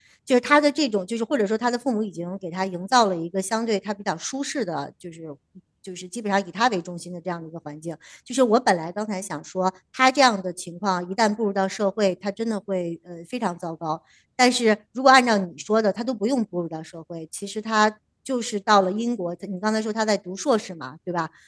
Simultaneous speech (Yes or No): No